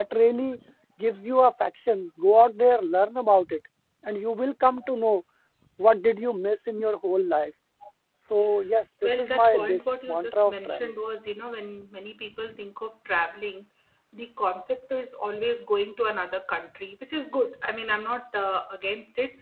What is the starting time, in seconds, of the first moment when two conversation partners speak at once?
9 s

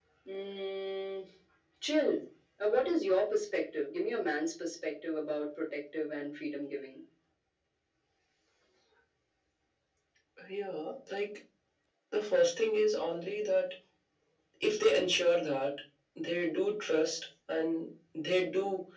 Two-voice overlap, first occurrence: none

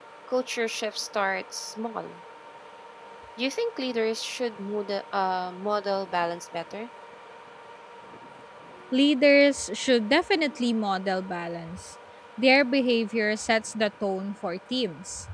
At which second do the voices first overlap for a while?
none

